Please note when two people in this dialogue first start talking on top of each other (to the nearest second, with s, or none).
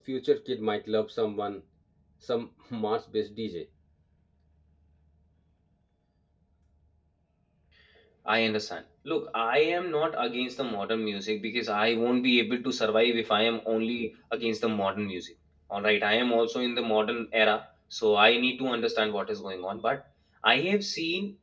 none